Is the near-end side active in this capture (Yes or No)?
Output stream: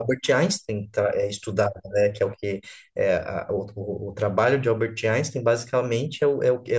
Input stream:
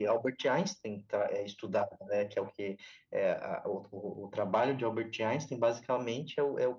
No